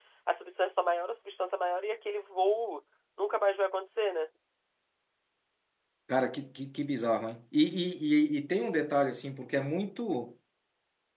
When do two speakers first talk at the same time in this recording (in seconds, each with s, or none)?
none